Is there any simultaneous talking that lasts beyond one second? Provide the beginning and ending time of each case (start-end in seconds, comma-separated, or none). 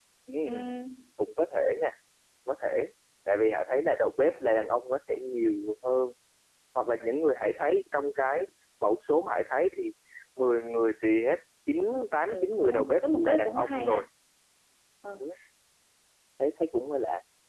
12.3-14.0